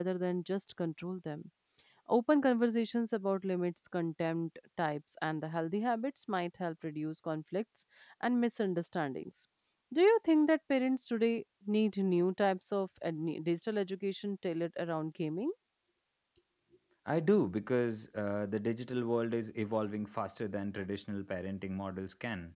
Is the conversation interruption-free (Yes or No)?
Yes